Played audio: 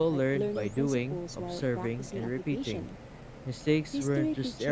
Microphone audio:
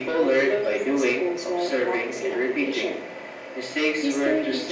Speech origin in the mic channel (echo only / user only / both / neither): echo only